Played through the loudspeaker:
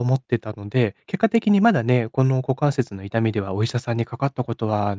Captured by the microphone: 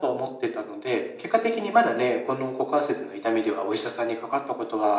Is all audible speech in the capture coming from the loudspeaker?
Yes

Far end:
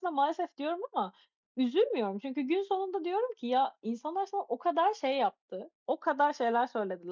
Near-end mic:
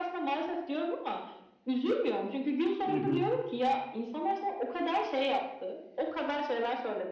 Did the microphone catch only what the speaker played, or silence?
No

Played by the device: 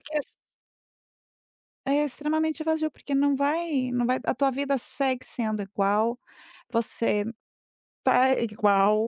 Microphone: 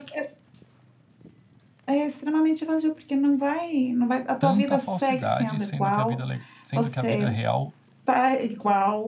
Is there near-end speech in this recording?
Yes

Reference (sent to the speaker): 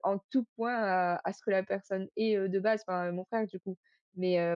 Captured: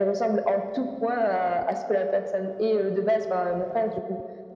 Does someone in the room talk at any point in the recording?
No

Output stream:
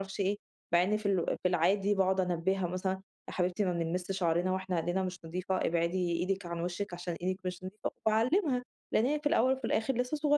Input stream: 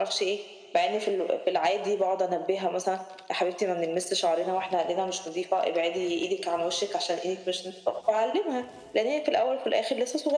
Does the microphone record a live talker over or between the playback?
No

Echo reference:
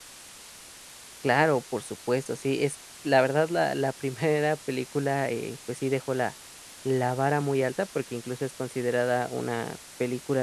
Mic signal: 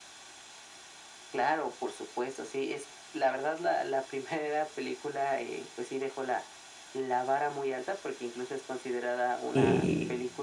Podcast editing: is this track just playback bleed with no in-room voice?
No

